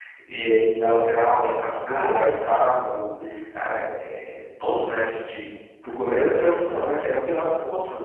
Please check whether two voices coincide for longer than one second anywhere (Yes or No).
Yes